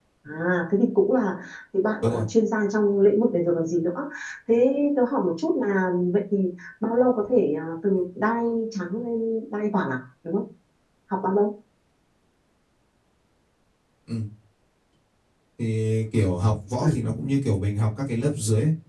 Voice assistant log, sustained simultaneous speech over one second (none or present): none